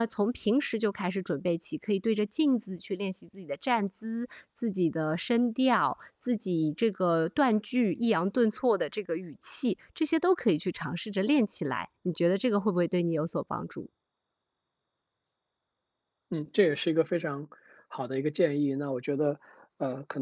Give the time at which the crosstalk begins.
none

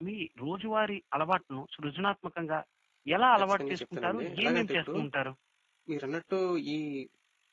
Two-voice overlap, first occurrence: 4 s

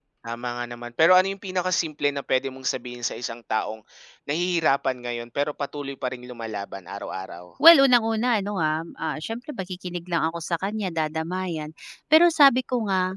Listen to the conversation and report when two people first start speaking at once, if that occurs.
none

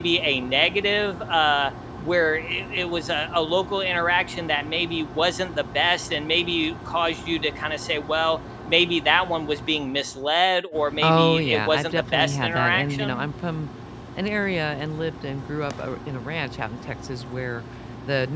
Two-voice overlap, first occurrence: 11 s

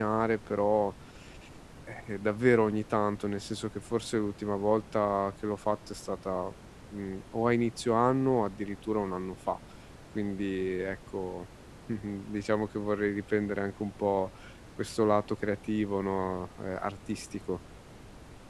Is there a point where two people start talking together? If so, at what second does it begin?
none

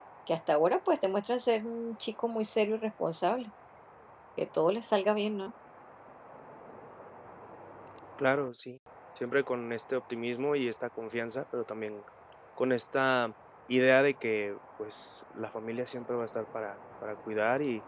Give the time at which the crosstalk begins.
none

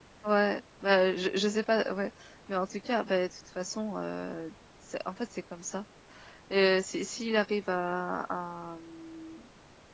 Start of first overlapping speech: none

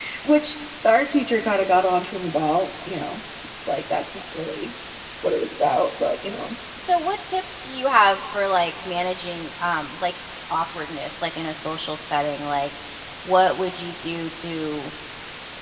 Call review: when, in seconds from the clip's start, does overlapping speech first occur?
none

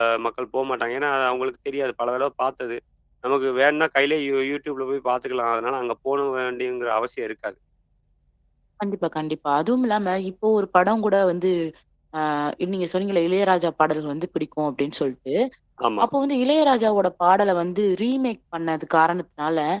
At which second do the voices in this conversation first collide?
none

